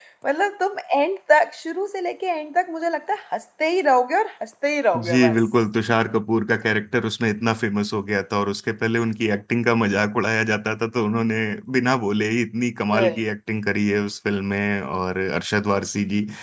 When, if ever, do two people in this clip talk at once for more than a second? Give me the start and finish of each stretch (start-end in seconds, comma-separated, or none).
none